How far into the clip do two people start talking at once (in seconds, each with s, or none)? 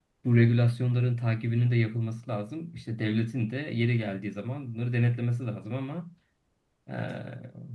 none